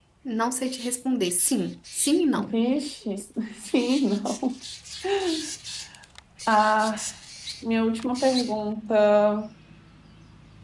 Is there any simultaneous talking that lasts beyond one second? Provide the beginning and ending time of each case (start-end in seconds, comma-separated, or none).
none